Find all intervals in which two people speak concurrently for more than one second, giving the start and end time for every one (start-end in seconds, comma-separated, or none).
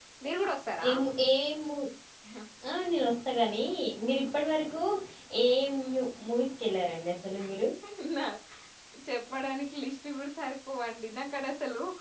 none